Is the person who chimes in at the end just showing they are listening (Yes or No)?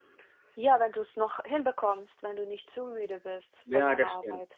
No